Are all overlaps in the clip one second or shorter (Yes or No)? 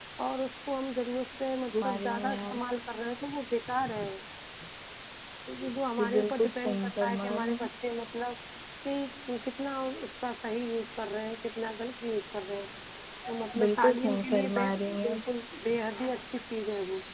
No